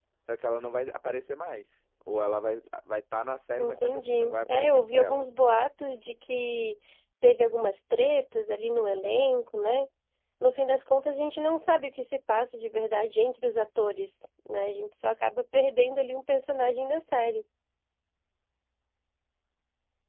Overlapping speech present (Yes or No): Yes